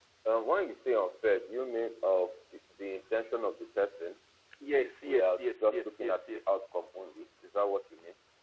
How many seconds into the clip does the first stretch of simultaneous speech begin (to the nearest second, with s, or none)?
5 s